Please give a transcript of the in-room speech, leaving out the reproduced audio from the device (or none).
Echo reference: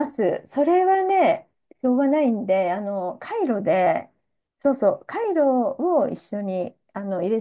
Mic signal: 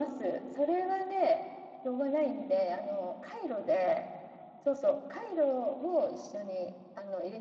none